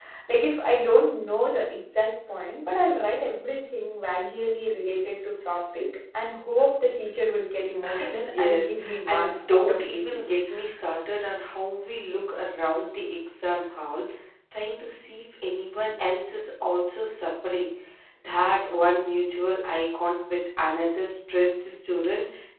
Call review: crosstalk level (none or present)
present